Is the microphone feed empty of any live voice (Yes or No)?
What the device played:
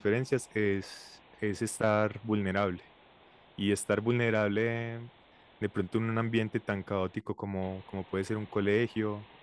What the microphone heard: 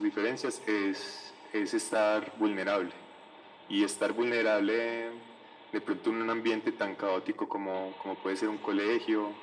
Yes